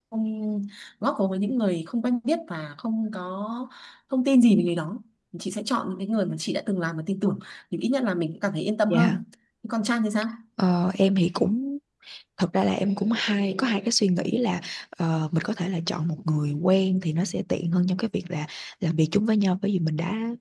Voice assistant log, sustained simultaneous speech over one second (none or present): none